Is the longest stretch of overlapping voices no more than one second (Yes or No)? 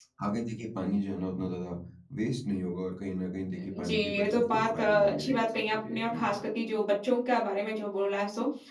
No